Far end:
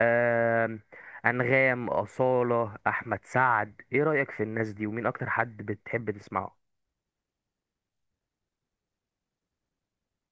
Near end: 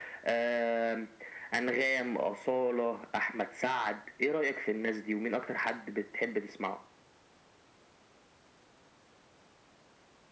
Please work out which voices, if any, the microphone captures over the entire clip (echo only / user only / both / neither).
echo only